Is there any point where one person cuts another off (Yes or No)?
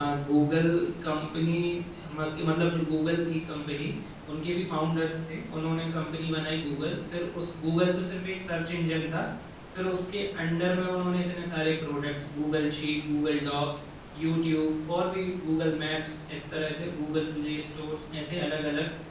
No